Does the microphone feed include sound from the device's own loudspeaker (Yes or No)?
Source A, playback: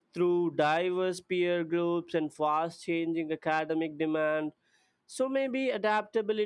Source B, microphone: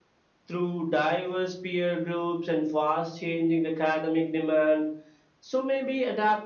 Yes